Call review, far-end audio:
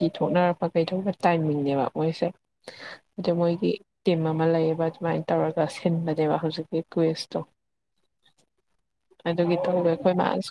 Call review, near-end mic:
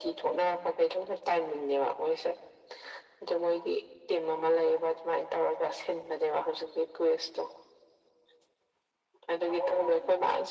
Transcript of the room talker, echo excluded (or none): none